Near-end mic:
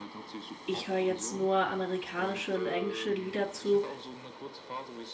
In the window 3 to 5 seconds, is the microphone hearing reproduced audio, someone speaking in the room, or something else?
both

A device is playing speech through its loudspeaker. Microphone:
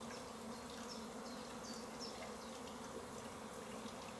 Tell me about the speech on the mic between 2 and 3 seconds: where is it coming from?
neither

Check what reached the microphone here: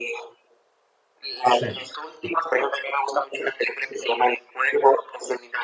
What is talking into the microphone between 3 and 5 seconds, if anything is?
echo only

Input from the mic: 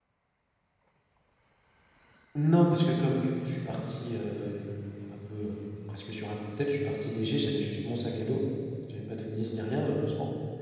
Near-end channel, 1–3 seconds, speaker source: user only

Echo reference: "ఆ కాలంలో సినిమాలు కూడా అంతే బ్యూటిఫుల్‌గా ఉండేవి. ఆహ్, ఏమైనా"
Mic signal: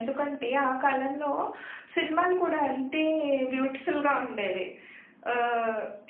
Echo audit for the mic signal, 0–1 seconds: echo only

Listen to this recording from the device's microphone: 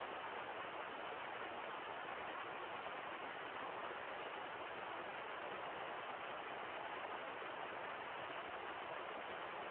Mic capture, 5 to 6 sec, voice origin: neither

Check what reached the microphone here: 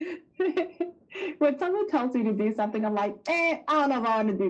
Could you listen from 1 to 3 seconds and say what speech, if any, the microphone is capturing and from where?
echo only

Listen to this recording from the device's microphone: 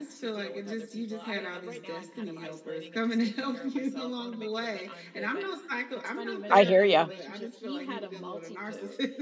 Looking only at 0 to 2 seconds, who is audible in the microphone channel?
echo only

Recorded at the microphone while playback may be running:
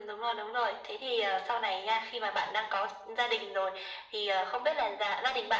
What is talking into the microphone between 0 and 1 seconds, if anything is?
echo only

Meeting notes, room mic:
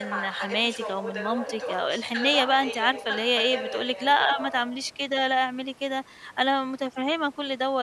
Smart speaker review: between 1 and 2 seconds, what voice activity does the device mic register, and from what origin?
both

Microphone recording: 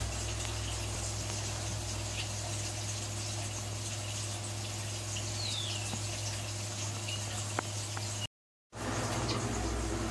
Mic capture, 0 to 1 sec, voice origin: neither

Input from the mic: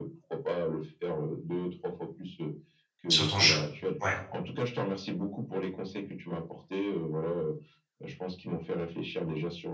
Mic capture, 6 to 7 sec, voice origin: echo only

